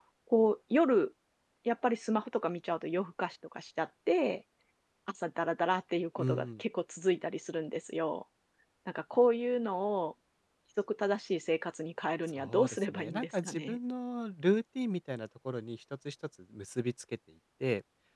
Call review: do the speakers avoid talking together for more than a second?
No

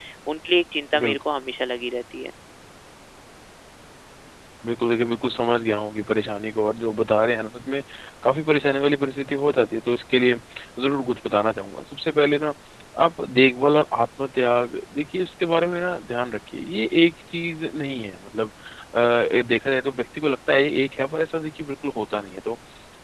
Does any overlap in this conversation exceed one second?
No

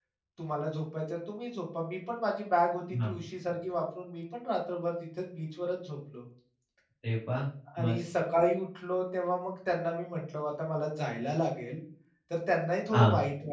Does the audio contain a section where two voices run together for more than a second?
No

